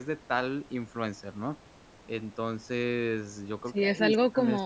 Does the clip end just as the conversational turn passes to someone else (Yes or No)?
Yes